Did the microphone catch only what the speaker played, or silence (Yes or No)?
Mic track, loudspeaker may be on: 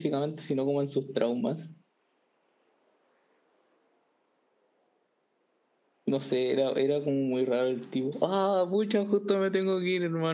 No